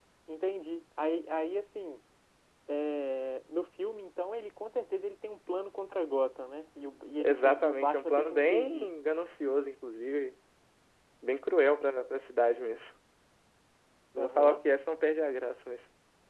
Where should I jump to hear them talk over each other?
7.2 s

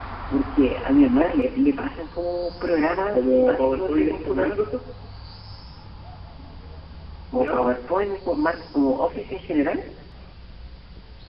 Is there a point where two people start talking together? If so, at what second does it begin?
3.1 s

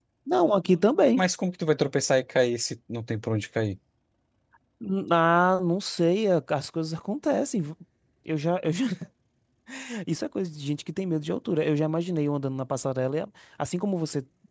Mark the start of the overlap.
none

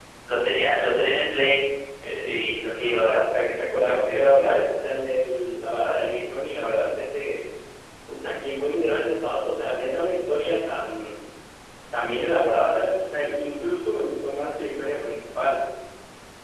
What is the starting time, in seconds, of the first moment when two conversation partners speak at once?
2.7 s

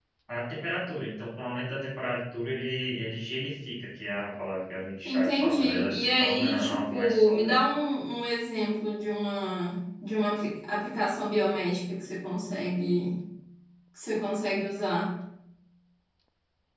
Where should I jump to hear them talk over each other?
5.0 s

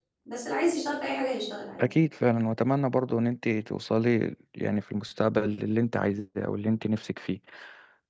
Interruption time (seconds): none

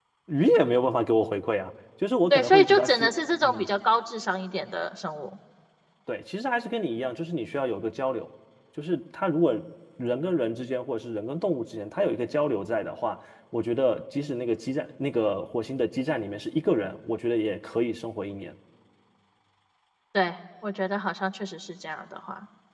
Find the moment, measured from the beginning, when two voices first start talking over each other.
2.3 s

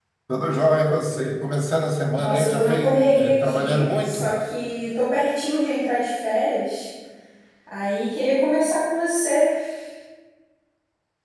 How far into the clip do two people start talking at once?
2.2 s

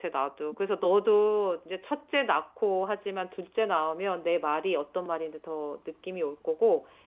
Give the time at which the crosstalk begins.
none

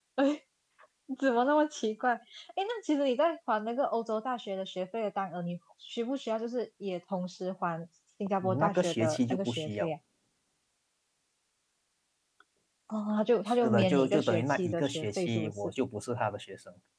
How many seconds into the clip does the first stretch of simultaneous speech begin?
8.4 s

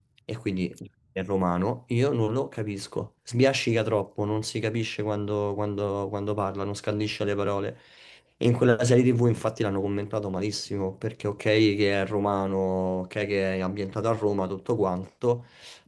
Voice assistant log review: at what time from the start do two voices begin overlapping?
none

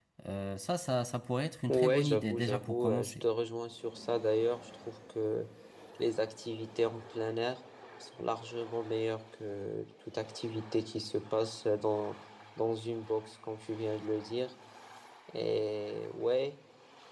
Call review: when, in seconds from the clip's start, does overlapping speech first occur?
1.7 s

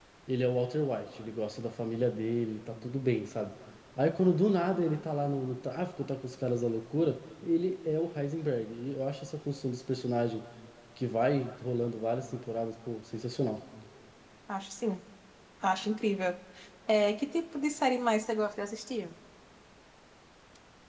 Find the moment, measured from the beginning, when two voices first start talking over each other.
none

